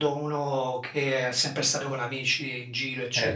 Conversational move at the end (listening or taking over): taking over